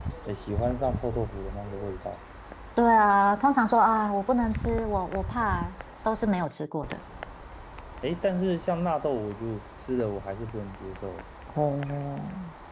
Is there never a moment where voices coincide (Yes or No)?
Yes